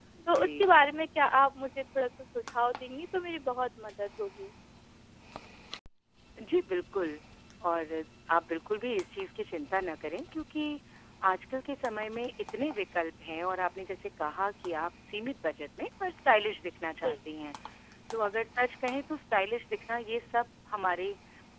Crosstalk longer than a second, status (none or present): none